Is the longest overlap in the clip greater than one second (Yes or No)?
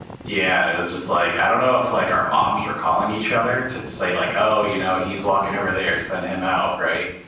No